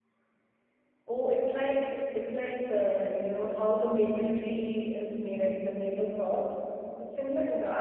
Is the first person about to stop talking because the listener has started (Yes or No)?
Yes